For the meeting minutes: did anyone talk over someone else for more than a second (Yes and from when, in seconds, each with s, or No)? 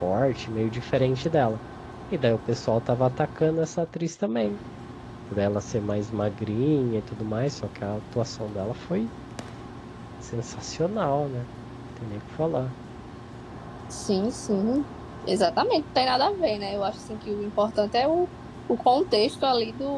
No